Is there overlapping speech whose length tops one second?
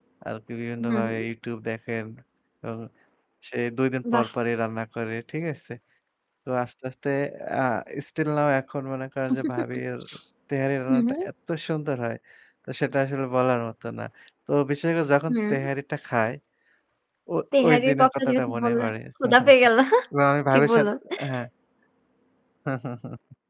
Yes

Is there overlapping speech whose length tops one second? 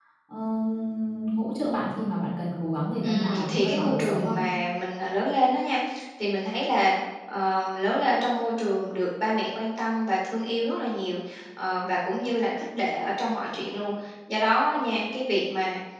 Yes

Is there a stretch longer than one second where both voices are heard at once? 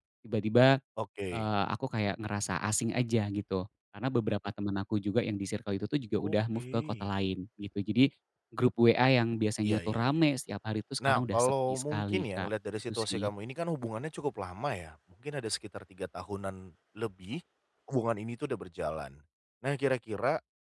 Yes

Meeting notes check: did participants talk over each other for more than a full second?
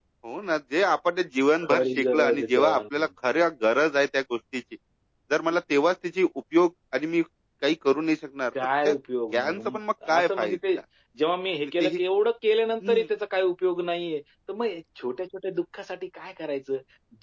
Yes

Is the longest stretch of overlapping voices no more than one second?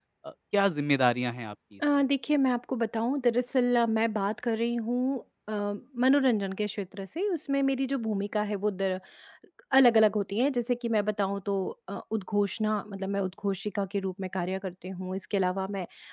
Yes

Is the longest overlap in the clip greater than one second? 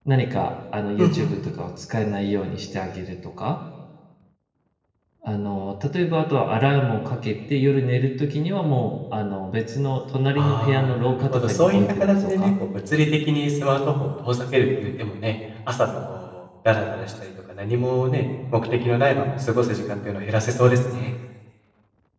Yes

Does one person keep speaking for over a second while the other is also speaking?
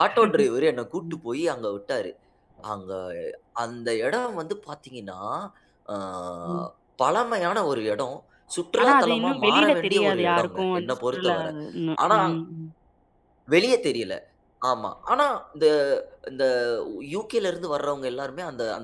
Yes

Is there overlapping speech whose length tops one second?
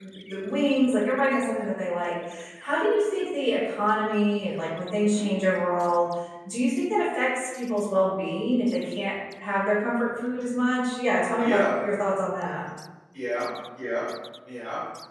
No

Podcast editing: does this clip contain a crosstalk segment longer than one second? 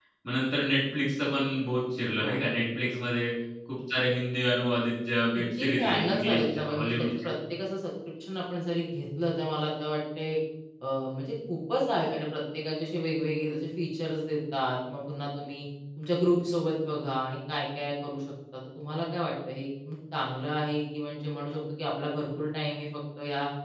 Yes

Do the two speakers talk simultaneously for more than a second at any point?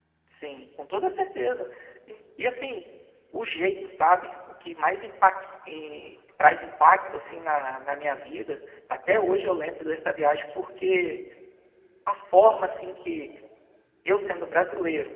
No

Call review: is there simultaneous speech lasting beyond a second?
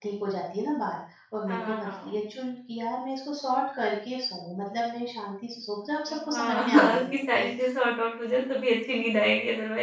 Yes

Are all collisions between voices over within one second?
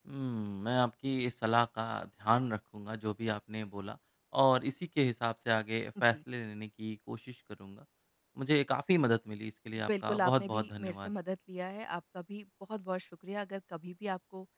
No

